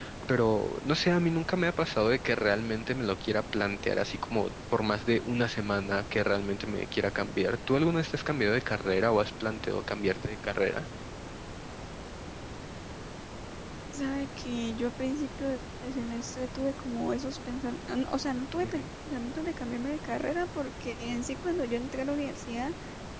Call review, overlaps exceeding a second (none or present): none